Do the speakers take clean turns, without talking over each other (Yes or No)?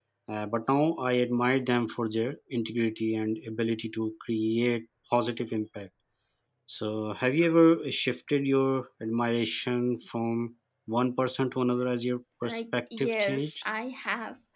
No